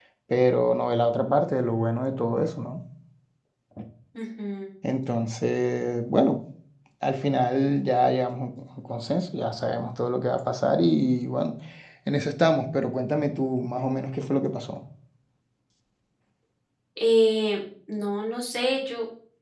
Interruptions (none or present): none